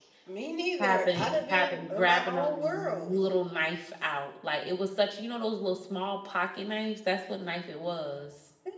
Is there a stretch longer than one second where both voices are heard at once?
Yes, from 0.8 s

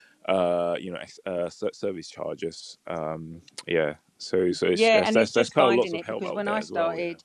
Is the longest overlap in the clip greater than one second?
Yes, from 4.7 s

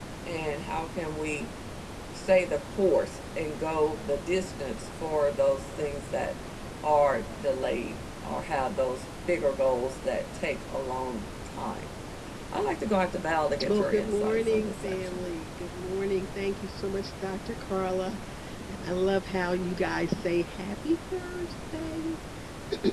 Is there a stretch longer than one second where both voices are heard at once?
Yes, from 13.6 s

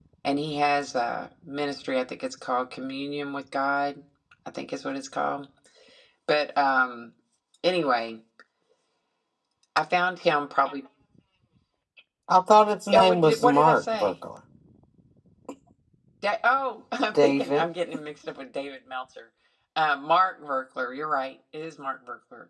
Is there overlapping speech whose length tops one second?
Yes, from 12.9 s

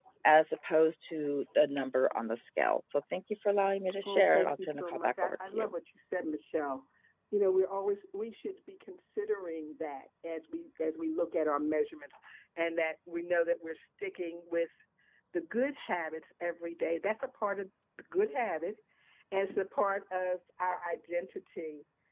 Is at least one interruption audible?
Yes, from 4.0 s

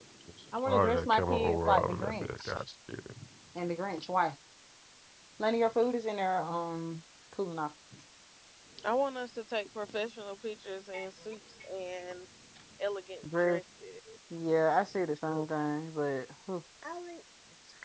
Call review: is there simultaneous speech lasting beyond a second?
Yes, from 0.7 s

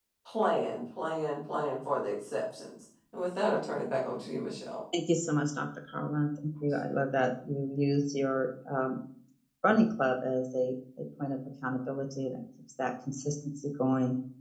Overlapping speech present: No

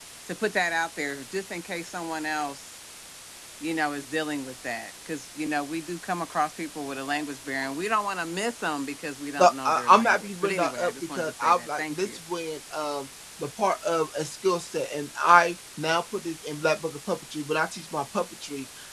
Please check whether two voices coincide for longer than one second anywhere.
Yes, from 9.4 s

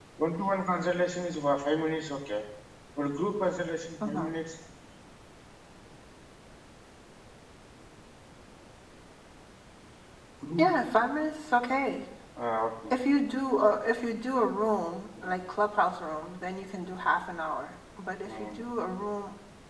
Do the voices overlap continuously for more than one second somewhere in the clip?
No

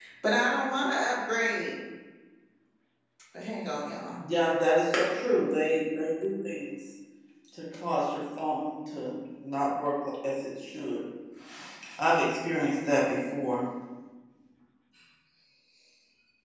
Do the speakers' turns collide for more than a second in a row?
No

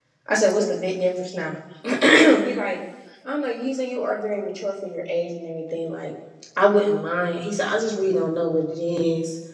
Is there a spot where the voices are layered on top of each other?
No

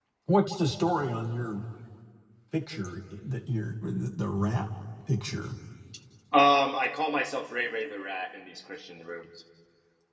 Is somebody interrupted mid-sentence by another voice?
No

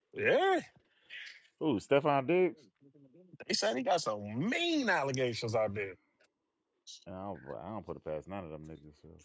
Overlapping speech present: No

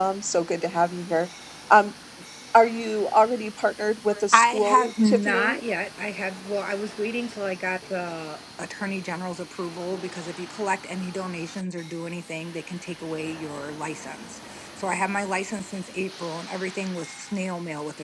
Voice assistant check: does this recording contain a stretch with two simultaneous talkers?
Yes, from 4.1 s

